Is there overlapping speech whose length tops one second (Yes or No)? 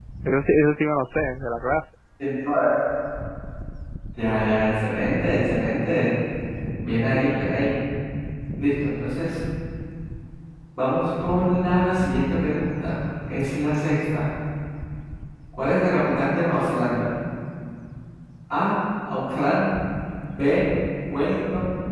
No